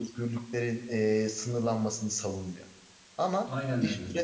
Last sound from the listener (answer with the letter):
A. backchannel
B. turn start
A